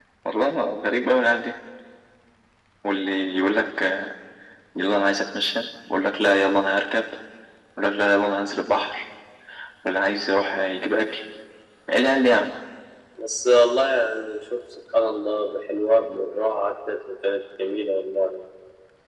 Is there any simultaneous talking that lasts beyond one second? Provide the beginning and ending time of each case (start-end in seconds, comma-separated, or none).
none